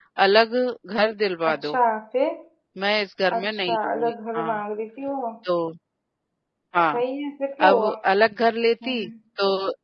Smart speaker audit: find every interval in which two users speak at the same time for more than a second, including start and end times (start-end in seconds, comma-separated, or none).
3.4-4.6